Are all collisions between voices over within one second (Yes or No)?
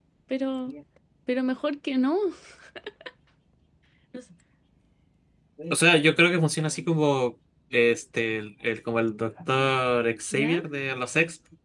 Yes